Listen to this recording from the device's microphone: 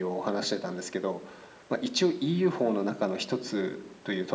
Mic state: echo only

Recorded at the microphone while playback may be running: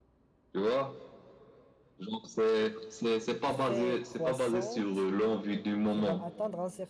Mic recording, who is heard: both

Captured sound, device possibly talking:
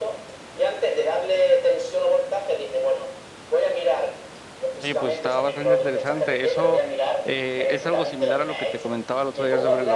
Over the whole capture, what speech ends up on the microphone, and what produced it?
both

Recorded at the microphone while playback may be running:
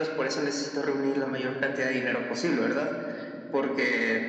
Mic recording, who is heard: echo only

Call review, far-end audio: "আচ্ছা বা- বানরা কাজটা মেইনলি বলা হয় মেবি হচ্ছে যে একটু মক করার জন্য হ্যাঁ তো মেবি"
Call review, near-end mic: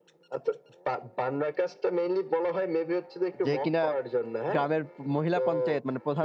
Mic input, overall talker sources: both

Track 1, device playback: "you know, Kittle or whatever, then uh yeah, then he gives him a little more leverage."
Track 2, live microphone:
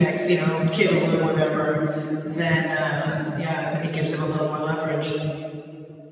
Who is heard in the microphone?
echo only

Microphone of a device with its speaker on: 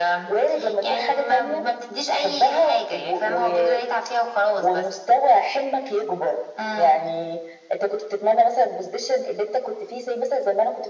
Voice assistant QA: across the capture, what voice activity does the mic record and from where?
echo only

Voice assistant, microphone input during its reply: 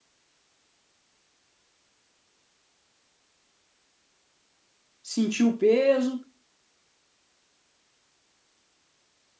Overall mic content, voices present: user only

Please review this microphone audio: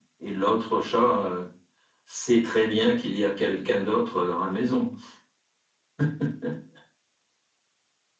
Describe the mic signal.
echo only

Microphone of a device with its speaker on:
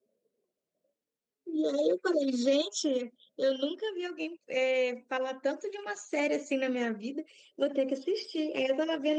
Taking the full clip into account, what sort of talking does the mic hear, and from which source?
user only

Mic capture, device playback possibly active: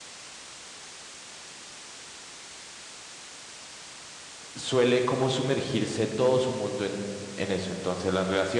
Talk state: user only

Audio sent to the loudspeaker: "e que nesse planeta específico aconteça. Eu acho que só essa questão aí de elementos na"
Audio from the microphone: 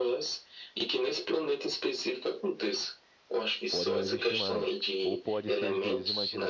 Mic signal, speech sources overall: both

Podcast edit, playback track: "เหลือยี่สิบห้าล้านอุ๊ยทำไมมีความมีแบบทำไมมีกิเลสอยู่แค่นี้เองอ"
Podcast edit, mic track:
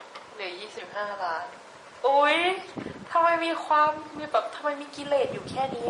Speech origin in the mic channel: echo only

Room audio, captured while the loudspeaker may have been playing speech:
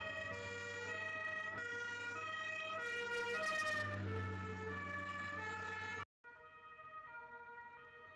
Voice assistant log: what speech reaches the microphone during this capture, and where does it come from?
neither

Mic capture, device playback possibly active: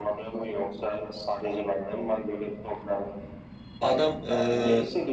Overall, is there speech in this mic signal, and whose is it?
both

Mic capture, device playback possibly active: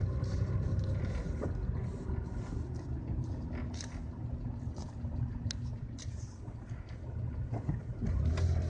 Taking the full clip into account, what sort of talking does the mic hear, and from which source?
neither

